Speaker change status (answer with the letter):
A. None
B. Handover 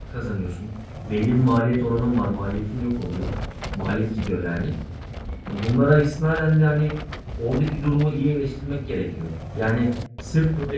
A